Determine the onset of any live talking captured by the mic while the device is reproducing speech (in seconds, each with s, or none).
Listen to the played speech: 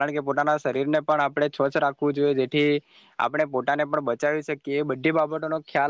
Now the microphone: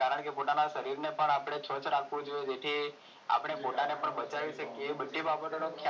3.6 s